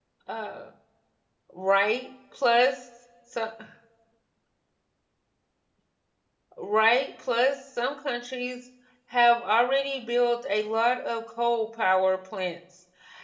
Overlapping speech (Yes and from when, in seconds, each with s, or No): No